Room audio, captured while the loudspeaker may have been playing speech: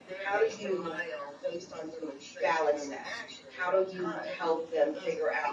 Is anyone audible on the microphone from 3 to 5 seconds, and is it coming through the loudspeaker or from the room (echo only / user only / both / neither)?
both